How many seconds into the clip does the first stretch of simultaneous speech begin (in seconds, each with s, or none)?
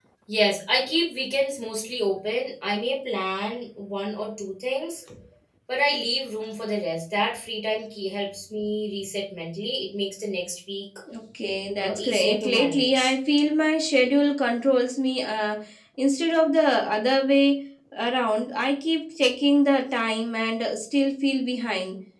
11.8 s